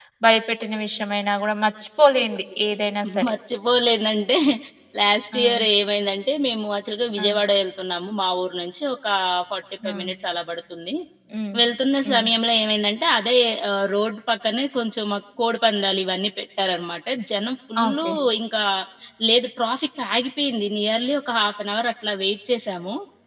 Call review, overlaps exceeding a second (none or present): none